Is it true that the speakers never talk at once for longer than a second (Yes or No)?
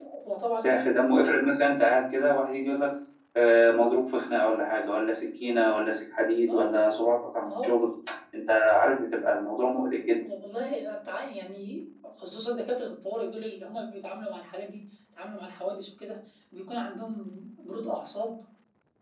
Yes